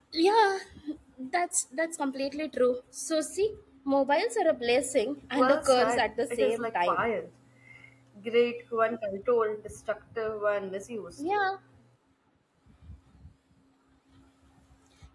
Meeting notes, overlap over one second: present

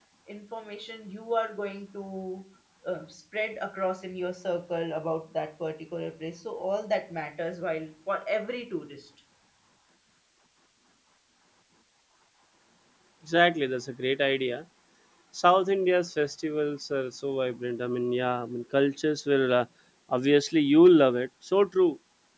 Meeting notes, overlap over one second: none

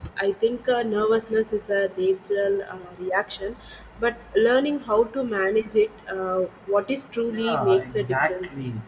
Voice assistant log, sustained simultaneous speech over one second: present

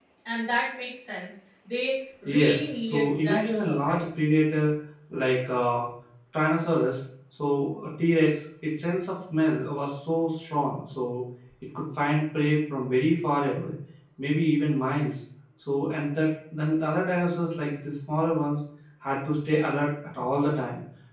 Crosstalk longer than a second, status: present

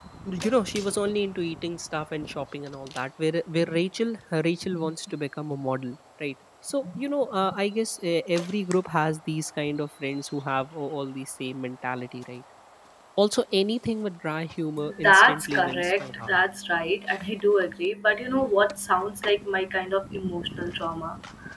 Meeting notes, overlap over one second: present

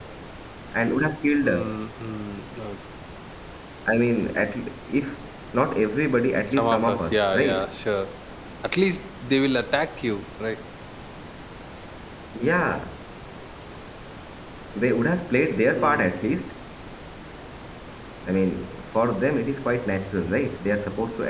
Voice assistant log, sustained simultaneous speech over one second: present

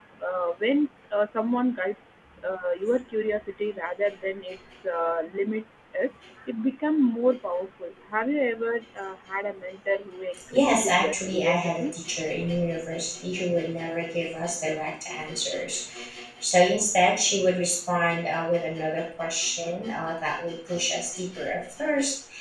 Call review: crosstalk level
present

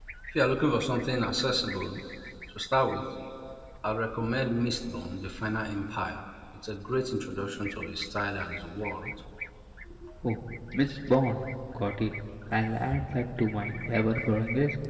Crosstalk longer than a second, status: none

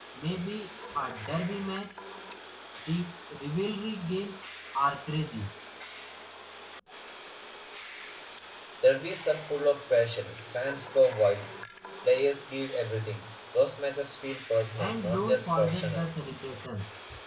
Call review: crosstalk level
present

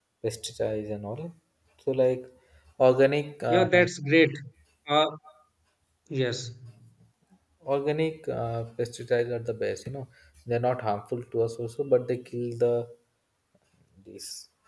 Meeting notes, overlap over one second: none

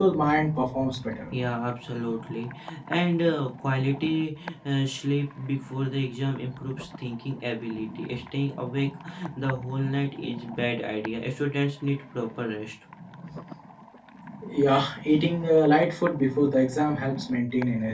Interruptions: none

